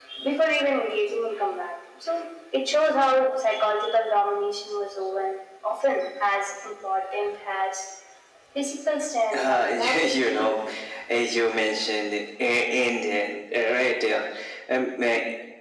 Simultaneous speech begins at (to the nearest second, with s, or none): 9 s